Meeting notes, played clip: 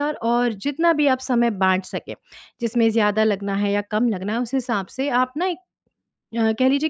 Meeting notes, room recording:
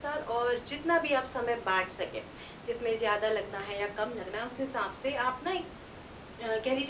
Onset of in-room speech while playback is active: none

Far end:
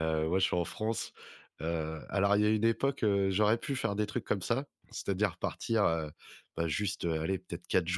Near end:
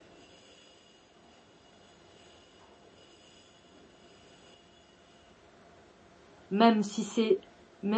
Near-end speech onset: 6.5 s

